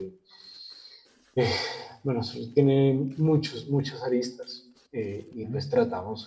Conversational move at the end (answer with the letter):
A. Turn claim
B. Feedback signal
B